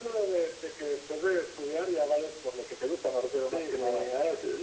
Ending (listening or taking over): taking over